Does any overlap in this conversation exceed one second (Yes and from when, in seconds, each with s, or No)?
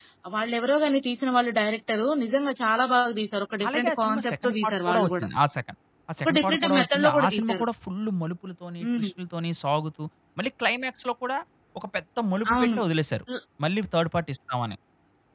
Yes, from 3.7 s